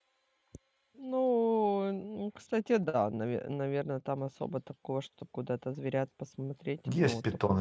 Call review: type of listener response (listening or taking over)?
taking over